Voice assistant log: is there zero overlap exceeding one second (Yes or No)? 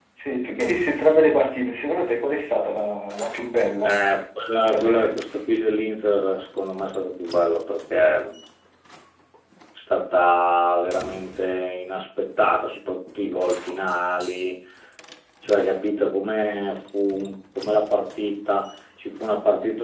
Yes